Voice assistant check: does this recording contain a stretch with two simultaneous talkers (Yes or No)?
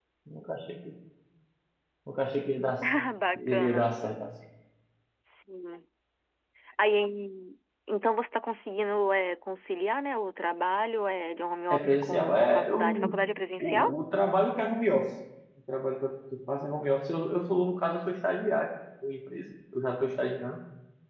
Yes